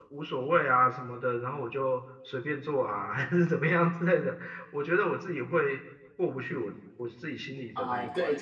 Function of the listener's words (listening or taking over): taking over